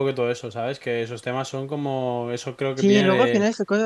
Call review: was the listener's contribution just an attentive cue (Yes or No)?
No